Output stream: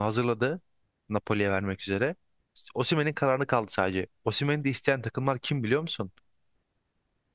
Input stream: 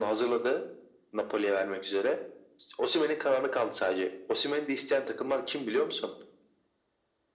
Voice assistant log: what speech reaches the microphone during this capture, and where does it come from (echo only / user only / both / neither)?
echo only